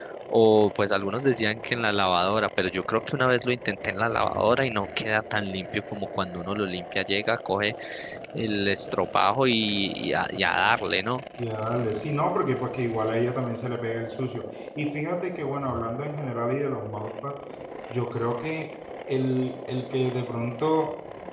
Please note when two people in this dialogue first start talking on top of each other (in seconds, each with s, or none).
none